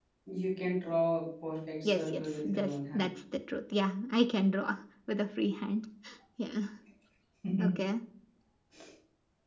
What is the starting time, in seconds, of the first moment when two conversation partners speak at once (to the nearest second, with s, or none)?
2 s